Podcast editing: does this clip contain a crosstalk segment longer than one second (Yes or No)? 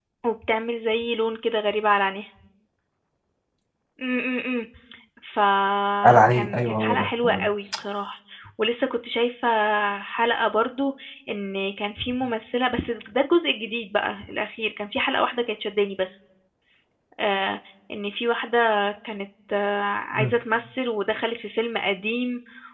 Yes